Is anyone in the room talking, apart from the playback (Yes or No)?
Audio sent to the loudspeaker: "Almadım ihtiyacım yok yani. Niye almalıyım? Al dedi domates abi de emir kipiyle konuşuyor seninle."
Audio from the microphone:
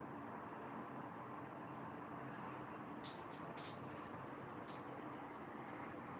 No